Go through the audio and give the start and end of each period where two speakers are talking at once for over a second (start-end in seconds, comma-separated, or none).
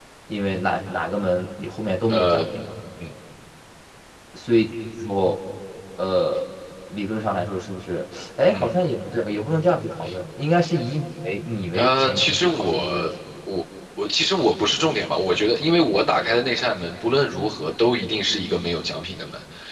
11.7-13.1